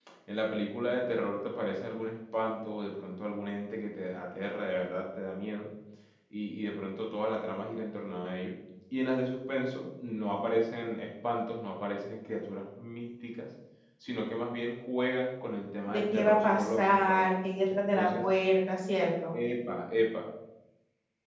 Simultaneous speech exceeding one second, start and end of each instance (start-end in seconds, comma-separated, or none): 15.9-17.3